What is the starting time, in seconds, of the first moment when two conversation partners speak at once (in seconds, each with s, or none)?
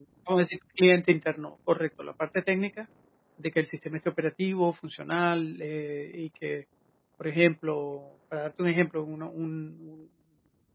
none